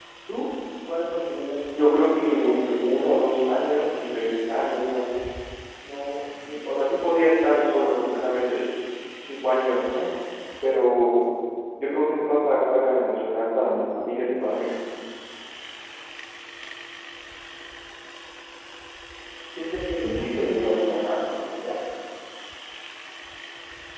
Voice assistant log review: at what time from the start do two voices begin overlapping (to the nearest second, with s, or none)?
2 s